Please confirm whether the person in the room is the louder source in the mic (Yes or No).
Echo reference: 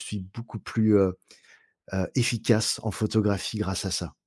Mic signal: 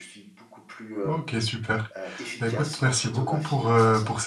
Yes